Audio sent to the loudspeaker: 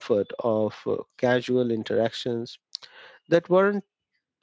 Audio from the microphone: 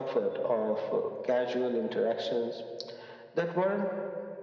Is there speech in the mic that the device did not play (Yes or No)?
No